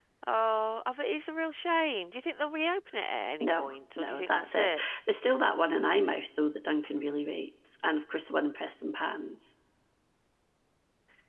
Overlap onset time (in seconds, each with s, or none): 3.4 s